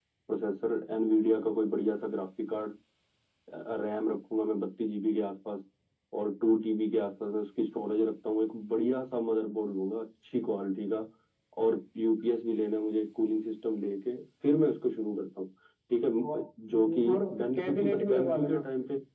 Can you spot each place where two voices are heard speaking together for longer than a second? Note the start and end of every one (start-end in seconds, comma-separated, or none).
16.3-18.6